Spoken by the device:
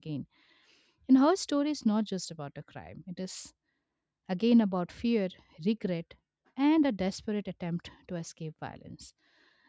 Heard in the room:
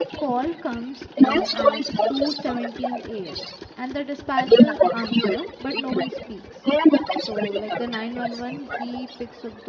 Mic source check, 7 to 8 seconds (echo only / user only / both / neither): both